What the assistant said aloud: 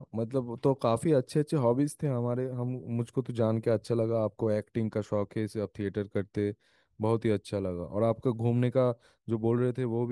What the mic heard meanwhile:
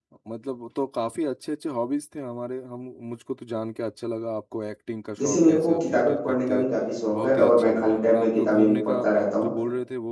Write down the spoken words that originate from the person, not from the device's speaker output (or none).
जैसे मेरे को किताबें पढ़ने का भी काफी शौक है और मैं खाली टाइम में किताबें भी पढ़ता रहता हूँ